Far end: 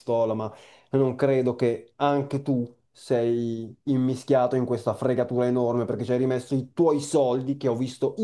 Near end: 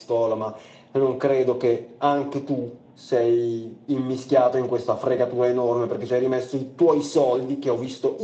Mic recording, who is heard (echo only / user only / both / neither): echo only